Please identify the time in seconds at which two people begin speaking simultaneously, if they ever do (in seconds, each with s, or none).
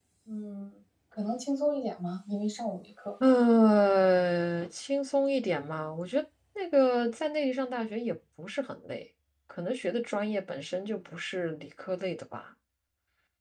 none